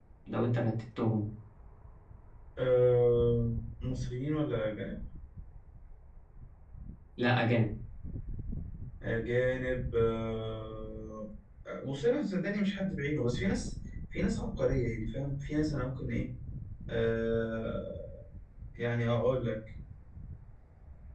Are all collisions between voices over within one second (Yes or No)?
Yes